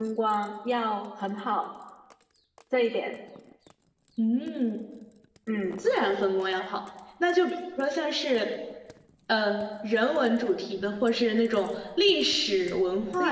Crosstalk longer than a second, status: none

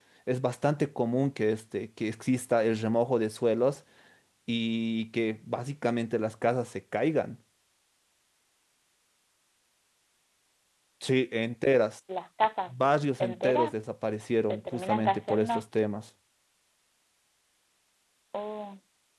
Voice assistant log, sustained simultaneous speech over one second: present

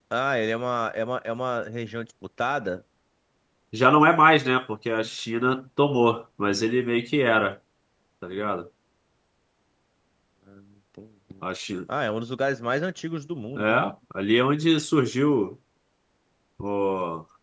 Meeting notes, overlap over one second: none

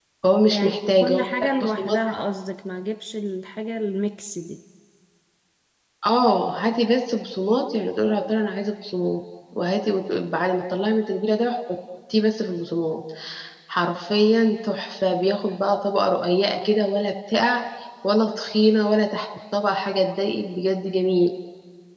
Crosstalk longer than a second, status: present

